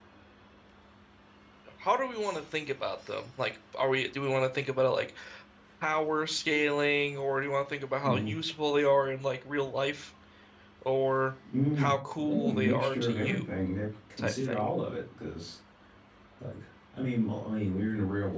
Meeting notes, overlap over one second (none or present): present